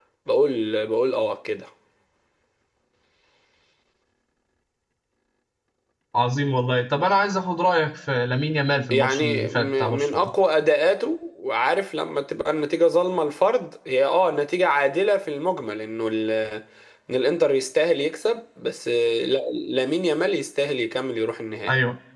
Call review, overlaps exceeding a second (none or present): present